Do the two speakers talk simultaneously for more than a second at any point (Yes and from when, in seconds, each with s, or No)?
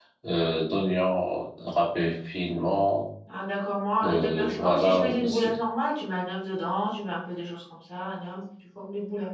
Yes, from 4.0 s